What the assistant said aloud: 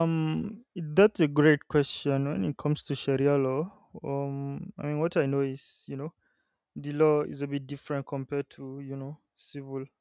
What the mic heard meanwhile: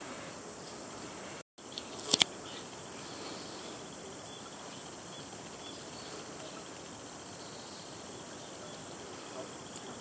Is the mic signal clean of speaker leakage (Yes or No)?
Yes